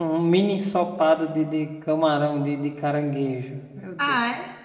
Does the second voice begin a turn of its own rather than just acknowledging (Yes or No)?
Yes